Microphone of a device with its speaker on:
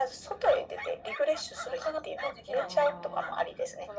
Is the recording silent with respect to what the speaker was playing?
No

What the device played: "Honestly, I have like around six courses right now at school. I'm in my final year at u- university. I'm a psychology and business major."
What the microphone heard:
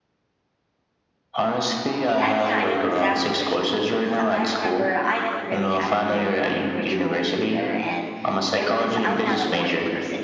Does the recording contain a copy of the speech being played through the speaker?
Yes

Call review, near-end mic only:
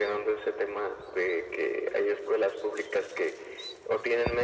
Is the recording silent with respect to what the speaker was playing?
No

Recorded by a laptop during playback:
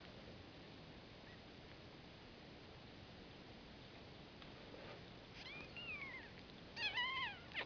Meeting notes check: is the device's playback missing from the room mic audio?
Yes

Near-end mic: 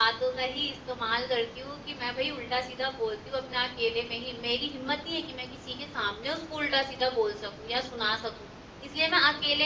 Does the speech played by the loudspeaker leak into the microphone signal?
No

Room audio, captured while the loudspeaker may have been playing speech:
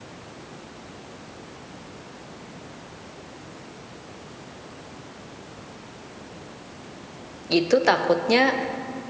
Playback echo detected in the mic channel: No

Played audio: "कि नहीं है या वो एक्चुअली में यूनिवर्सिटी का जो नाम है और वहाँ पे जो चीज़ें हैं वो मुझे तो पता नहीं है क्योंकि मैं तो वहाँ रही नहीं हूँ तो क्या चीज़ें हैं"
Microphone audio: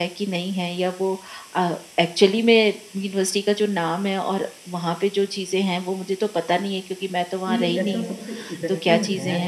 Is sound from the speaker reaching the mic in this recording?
Yes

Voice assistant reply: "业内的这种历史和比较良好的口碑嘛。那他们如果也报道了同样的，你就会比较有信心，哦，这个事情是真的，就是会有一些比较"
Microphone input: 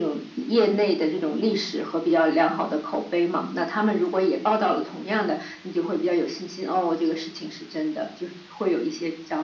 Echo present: Yes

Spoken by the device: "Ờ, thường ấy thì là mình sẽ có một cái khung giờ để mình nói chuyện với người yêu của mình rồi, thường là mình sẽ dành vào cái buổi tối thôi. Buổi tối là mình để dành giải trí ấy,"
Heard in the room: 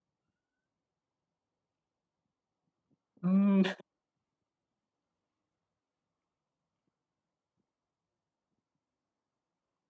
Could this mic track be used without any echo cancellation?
Yes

